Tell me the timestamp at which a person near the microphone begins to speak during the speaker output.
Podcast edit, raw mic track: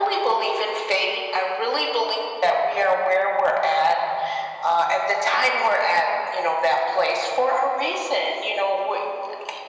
none

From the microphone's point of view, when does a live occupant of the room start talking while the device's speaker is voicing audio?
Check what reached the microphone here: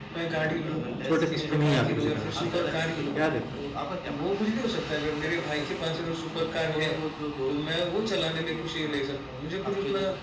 1.0 s

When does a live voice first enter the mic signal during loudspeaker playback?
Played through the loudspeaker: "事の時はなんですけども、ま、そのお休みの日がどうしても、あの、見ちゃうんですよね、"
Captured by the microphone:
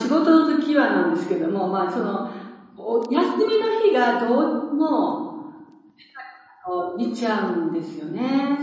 none

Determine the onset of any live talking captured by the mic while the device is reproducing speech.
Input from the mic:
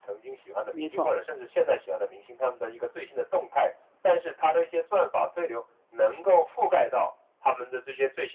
0.7 s

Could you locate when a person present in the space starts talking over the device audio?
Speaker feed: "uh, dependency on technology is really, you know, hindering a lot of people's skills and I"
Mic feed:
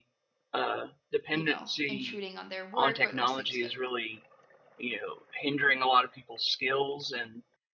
1.3 s

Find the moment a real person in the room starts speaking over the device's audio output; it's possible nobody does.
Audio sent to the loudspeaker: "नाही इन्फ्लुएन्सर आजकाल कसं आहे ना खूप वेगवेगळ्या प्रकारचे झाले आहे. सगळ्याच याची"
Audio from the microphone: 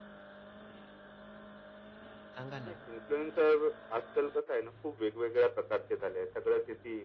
2.4 s

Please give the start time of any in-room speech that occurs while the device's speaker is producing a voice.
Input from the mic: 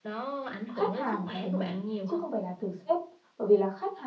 0.7 s

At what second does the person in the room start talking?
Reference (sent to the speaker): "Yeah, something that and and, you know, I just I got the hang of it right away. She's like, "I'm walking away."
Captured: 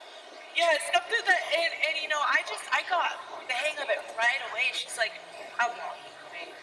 none

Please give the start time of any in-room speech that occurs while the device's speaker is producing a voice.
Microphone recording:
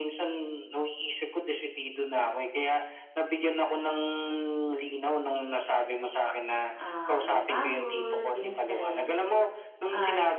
6.8 s

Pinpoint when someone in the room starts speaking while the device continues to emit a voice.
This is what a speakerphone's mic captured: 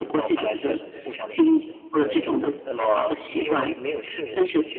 1.9 s

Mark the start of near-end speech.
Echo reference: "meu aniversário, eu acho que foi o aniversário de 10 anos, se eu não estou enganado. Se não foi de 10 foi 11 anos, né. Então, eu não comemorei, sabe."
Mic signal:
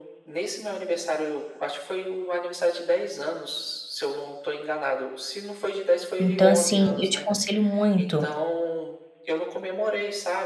6.2 s

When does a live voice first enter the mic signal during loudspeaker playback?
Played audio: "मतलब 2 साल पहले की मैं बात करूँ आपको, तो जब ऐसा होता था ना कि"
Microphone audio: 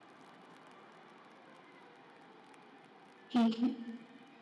3.3 s

